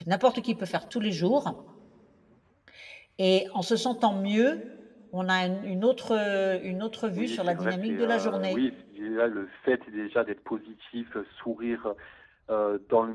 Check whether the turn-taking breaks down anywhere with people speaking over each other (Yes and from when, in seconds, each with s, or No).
Yes, from 7.2 s